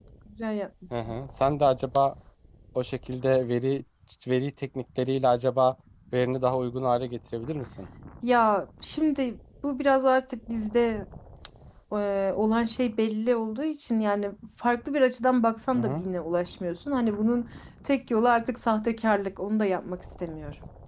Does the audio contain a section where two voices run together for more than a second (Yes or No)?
No